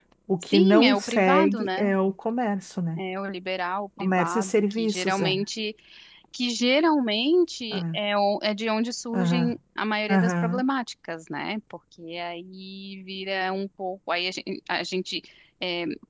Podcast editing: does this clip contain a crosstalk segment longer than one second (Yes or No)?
Yes